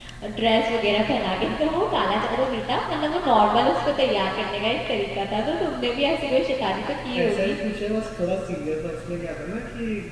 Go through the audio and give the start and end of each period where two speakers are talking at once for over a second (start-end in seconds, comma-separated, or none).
none